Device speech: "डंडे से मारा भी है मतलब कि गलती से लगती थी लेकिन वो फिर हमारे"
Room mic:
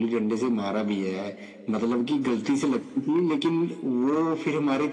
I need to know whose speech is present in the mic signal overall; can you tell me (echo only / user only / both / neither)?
echo only